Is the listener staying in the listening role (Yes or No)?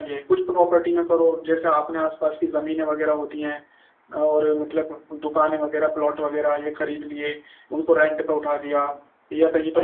No